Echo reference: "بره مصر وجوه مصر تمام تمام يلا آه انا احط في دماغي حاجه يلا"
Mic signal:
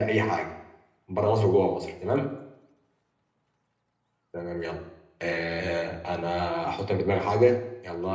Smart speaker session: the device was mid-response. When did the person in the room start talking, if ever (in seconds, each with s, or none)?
none